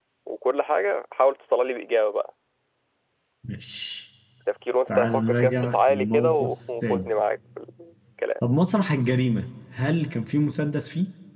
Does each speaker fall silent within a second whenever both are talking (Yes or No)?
No